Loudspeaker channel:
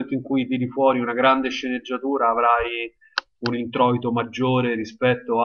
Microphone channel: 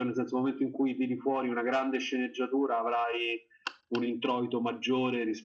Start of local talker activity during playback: none

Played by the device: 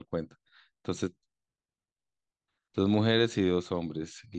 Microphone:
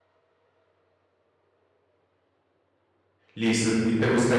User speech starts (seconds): 3 s

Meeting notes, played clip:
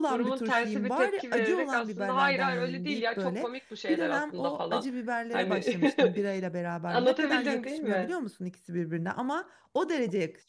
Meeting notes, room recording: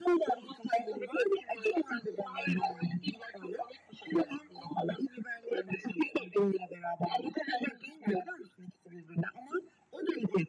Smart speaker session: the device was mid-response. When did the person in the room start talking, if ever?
none

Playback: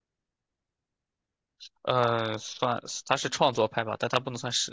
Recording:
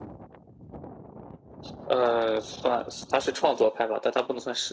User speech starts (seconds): none

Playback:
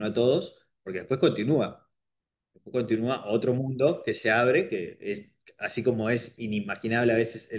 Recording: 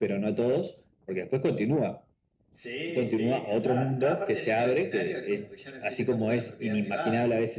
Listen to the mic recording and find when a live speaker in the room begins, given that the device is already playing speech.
2 s

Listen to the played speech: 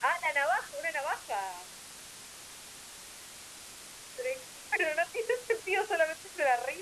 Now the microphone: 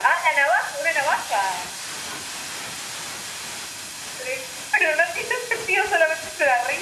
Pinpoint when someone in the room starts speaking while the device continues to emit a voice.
none

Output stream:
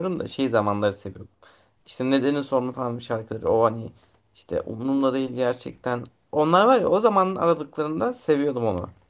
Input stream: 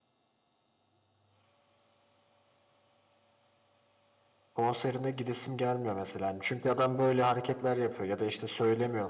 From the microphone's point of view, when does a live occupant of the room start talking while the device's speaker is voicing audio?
5 s

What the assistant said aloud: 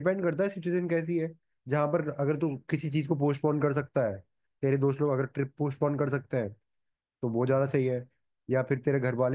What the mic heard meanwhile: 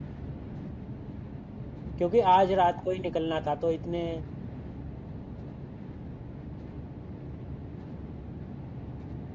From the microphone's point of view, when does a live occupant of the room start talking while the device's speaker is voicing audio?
2 s

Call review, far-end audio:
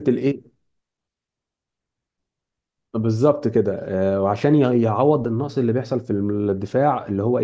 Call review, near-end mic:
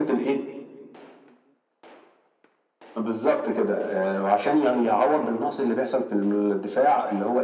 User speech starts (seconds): none

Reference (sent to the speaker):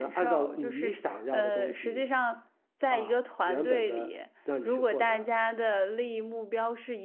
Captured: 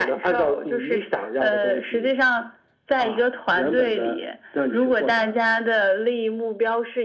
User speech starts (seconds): none

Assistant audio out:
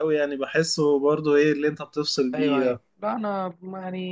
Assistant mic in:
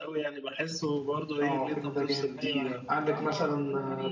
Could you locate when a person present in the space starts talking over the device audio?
1 s

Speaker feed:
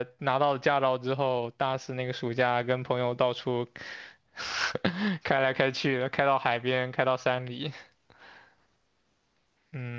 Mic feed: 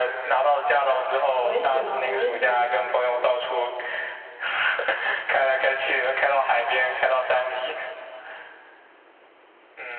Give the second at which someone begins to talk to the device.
1 s

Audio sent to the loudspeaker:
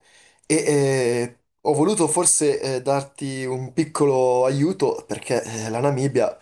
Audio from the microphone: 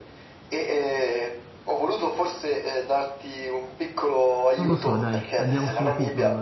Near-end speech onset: 5 s

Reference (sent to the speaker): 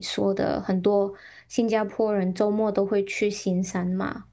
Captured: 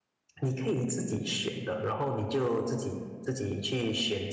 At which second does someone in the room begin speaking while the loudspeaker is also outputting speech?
0 s

